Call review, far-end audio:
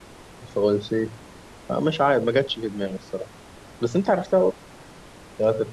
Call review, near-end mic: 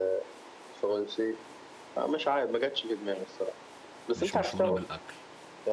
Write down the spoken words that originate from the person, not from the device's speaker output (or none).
مش مشهورة بالأكل